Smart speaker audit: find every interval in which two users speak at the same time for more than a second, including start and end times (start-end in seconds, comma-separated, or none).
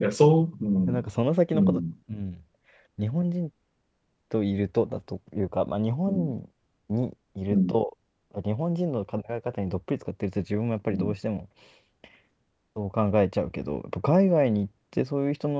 none